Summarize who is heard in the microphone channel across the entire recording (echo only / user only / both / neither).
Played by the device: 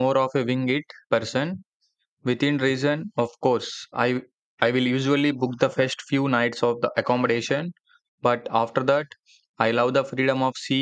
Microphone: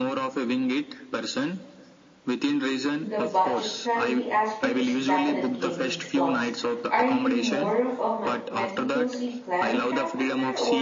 both